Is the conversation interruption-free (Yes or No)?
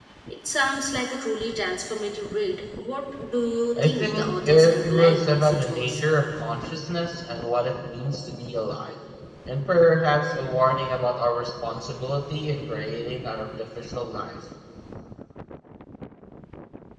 No